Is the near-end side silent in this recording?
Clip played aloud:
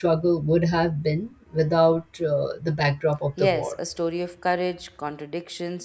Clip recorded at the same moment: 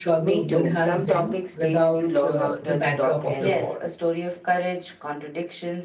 No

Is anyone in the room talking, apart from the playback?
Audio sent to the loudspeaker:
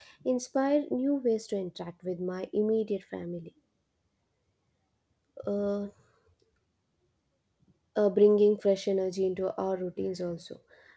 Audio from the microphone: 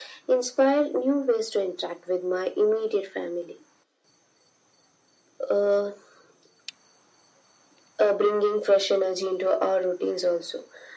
No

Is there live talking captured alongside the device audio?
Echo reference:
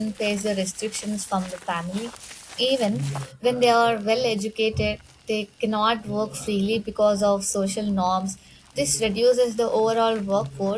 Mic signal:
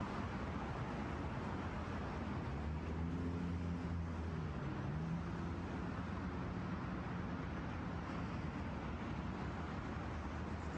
No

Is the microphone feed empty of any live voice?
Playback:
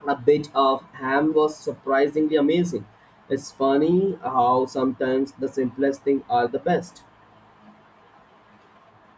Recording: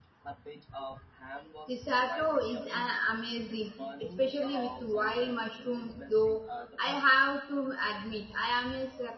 No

